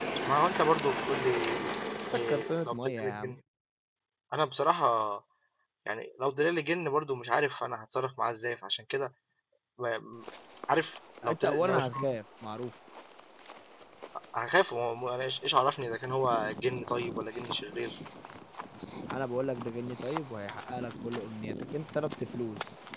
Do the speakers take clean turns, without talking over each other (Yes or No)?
No